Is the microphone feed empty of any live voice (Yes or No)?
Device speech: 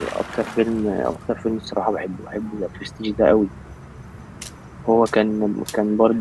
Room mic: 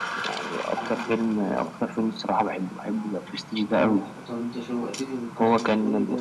No